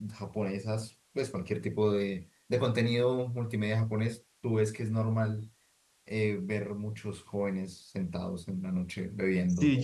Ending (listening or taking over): taking over